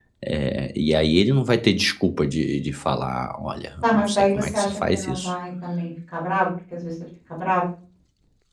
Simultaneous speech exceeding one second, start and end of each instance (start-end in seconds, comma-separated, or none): 3.8-5.3